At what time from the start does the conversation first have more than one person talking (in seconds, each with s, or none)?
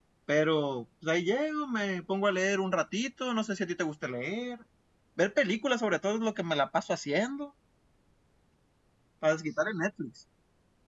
none